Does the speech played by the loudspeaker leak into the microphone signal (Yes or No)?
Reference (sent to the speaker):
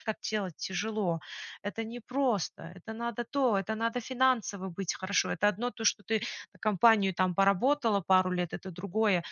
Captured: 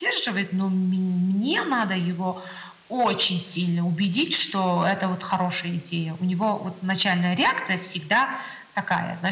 No